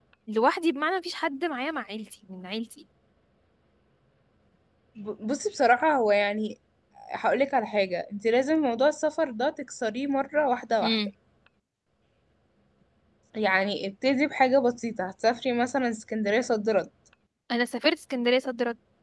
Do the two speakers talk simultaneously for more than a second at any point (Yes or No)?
No